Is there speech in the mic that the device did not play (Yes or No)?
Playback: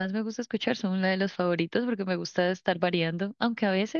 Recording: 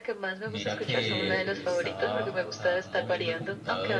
Yes